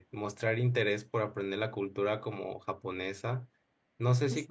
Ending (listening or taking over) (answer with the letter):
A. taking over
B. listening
B